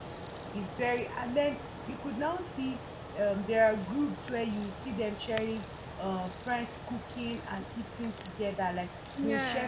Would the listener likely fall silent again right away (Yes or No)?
Yes